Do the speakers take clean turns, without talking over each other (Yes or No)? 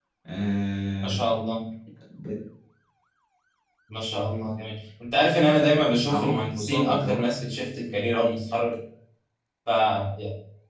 No